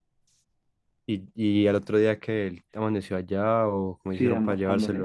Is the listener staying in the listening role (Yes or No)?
No